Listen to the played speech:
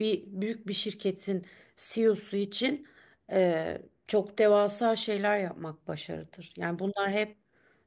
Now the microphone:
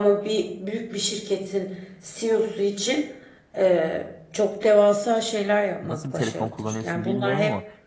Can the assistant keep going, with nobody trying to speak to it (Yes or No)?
No